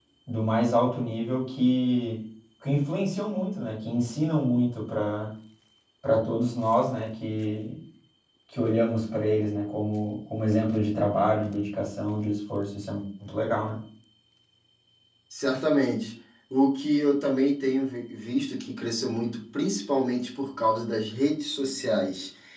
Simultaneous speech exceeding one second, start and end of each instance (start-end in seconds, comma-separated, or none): none